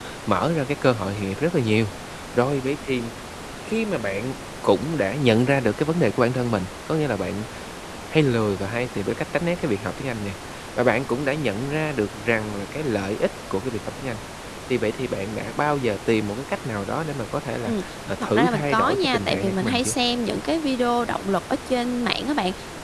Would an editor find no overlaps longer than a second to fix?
No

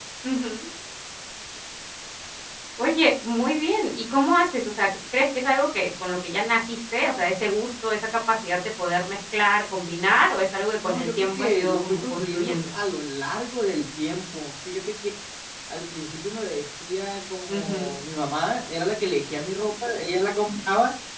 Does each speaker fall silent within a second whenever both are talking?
No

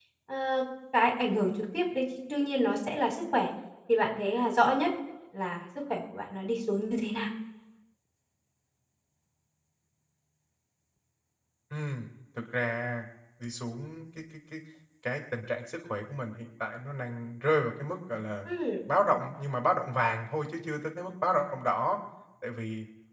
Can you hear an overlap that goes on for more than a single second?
No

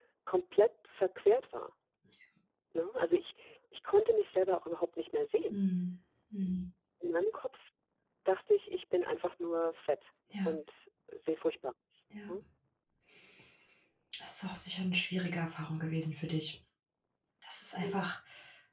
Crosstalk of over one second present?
No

